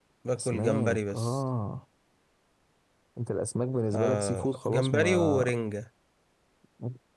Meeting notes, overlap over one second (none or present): present